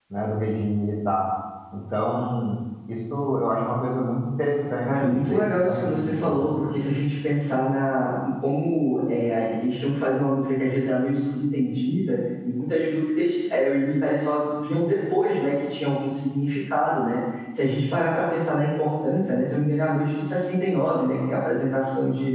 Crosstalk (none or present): present